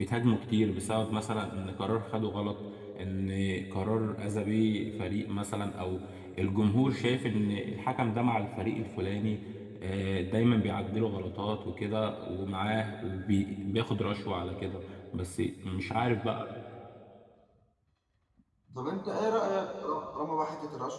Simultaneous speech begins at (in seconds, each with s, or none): none